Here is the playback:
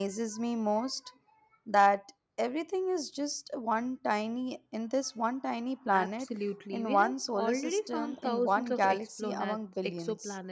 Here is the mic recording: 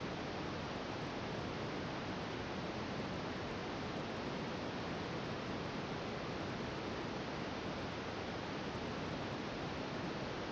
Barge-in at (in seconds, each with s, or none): none